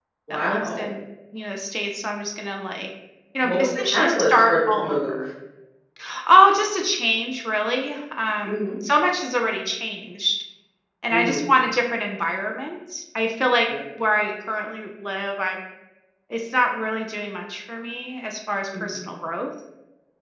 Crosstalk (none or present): present